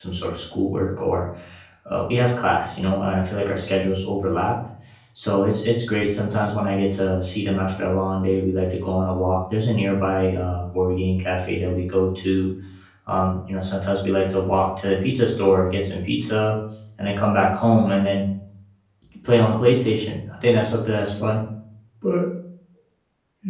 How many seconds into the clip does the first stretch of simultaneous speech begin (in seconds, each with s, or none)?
none